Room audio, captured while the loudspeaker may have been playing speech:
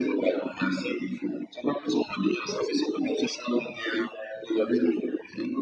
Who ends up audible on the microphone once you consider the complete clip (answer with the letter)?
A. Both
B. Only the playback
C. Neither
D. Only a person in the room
B